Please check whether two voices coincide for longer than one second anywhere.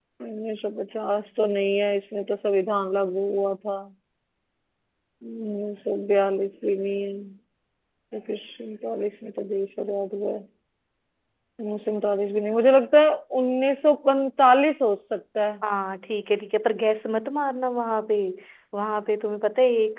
No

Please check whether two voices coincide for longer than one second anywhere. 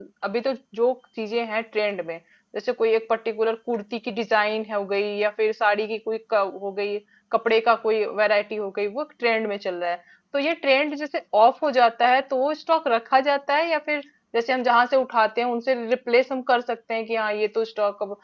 No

